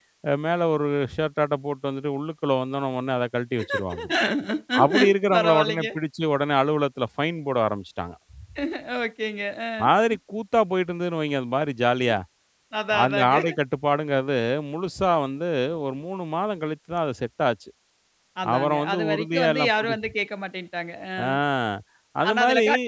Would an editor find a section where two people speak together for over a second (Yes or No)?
Yes